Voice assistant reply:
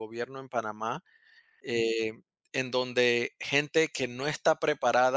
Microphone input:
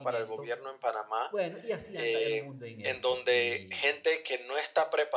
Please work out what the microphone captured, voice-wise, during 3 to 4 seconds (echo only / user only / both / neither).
both